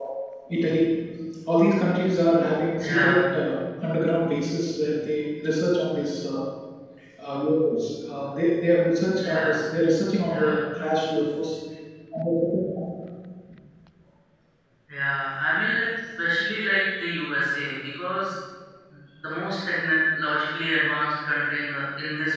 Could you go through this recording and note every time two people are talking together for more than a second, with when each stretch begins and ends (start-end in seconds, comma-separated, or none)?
none